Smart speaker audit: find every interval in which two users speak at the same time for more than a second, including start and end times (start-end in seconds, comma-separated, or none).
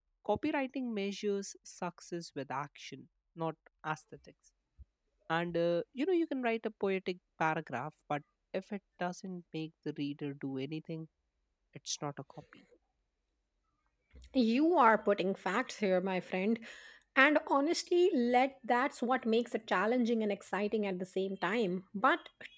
none